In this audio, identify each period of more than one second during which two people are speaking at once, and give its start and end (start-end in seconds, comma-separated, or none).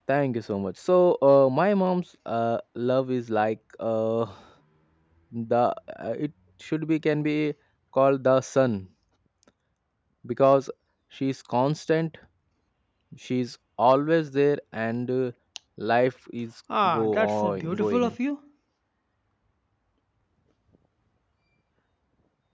16.9-18.1